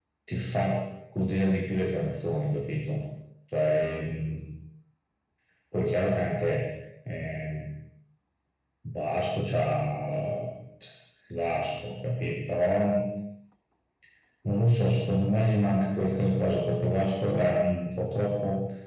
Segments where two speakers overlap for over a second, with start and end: none

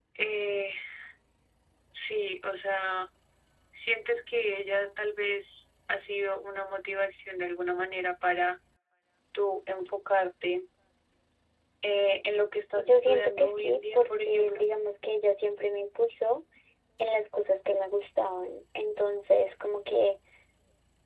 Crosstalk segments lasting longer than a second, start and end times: 12.8-14.7

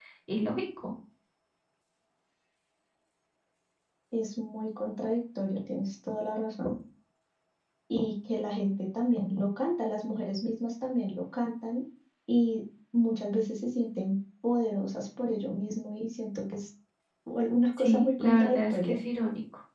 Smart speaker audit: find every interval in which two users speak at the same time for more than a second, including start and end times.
17.8-19.0

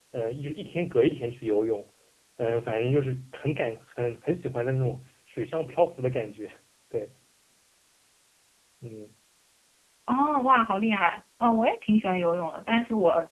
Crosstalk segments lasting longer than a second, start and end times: none

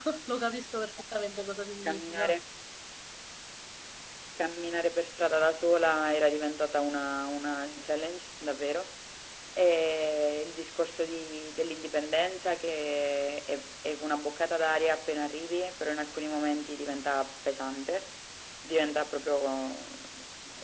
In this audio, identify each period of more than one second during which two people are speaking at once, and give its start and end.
none

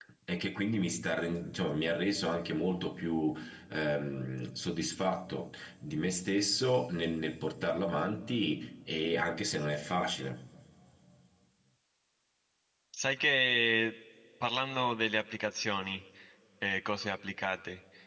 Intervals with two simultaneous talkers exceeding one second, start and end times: none

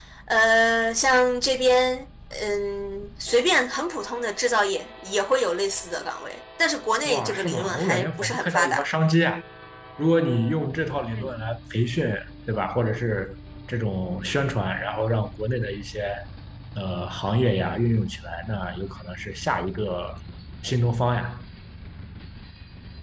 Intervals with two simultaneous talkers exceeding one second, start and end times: 7.0-8.8

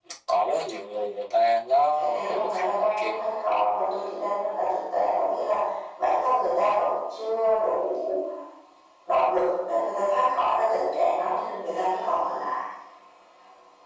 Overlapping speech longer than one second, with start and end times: 2.0-3.3

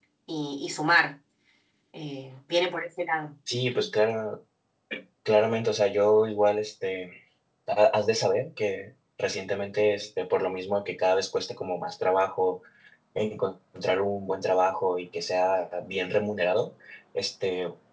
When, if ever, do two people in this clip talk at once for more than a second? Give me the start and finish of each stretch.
none

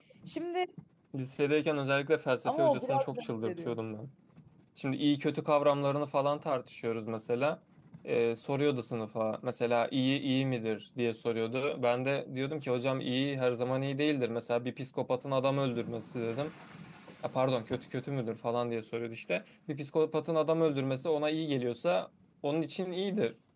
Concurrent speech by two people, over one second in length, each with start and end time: 2.4-3.8

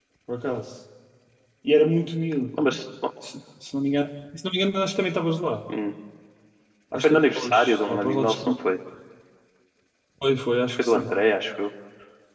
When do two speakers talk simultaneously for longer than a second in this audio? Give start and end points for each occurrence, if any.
7.0-8.4

